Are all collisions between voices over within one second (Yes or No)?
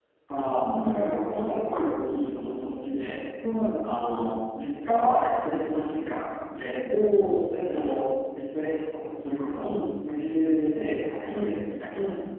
Yes